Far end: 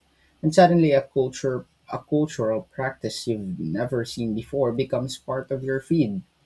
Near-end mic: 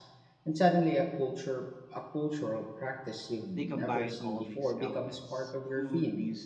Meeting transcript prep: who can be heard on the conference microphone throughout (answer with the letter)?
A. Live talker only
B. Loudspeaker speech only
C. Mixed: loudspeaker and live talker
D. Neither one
C